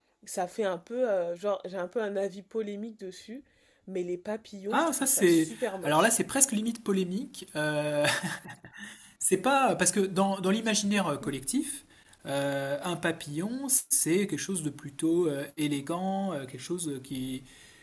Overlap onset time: 4.7 s

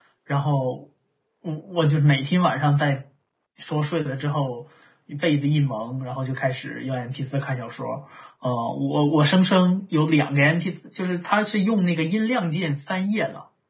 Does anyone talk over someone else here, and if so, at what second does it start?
none

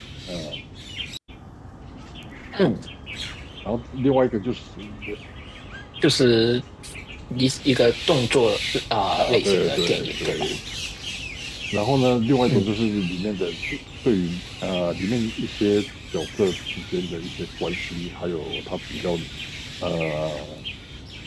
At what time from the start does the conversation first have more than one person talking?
9.2 s

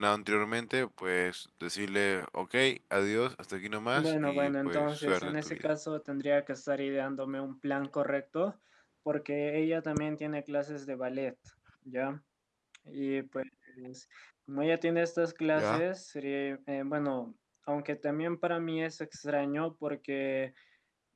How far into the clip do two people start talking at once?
4.0 s

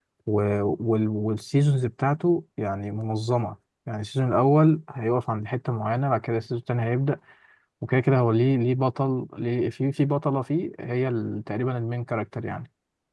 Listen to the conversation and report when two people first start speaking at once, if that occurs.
none

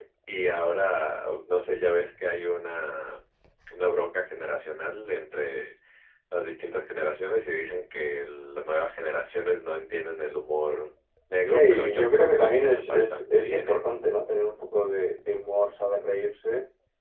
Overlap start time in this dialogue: 11.4 s

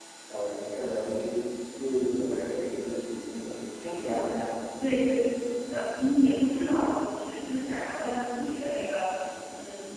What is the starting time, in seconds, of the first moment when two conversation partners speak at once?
none

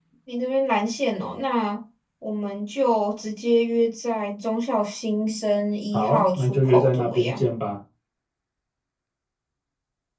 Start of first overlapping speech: 5.9 s

